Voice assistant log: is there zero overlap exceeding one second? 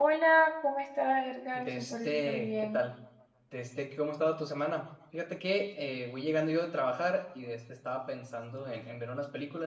No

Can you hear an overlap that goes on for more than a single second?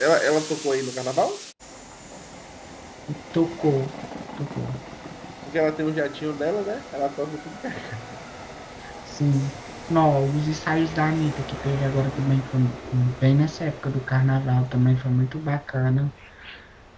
No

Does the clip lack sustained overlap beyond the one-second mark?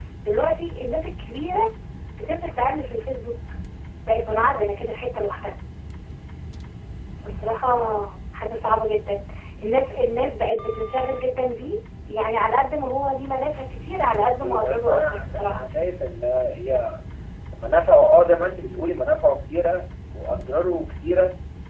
No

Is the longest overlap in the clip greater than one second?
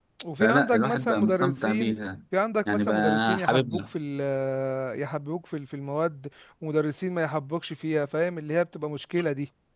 Yes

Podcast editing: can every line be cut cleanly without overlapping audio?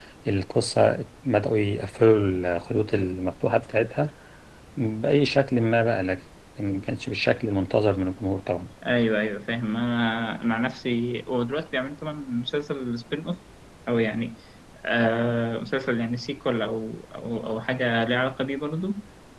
Yes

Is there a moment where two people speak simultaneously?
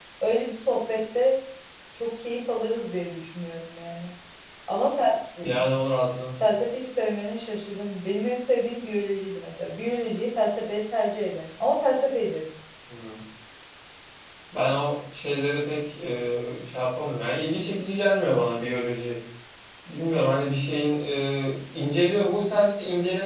No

